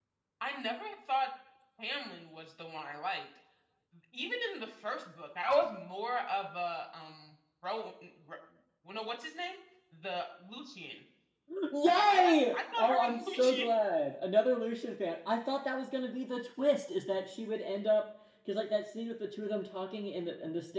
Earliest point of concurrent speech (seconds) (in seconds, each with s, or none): 11.8 s